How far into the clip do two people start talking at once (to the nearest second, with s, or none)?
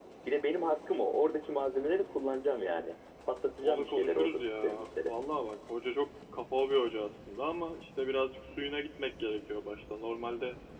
4 s